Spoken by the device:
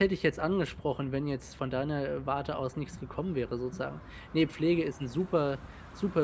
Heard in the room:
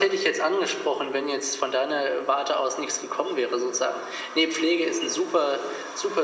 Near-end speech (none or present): none